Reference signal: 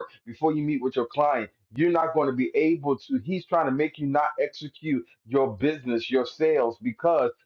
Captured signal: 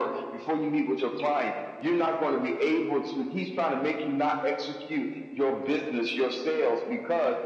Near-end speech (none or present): none